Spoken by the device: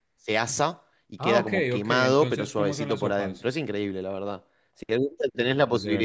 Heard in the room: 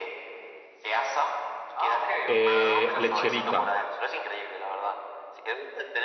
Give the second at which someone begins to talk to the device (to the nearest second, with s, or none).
2 s